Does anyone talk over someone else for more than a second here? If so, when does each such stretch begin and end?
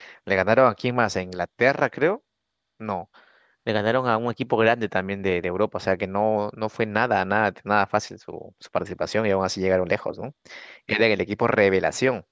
none

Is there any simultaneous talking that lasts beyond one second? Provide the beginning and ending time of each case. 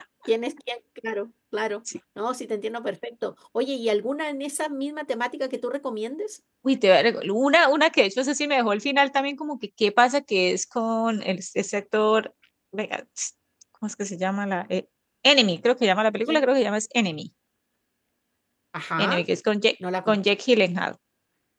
none

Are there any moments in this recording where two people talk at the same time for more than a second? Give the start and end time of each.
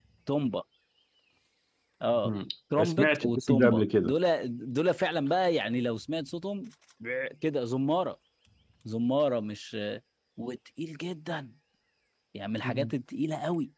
2.8-4.1

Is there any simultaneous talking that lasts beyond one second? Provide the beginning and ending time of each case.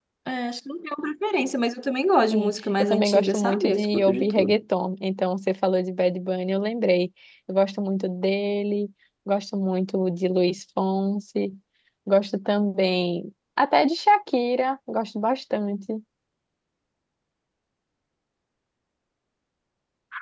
2.3-4.6

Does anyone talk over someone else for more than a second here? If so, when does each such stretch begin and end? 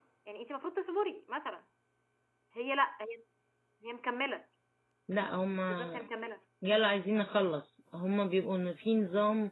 none

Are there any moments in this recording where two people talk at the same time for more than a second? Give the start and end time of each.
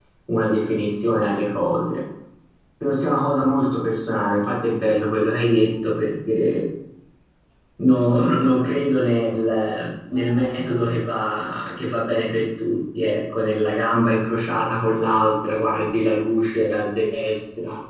none

